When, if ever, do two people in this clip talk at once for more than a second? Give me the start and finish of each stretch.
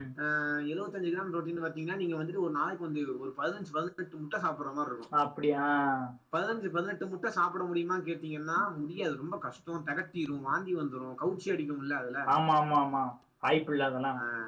none

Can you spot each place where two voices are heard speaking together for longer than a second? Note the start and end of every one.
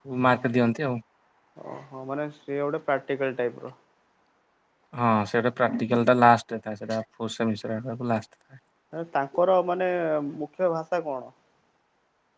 none

